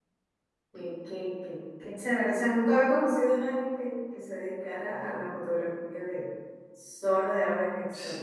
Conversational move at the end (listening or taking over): taking over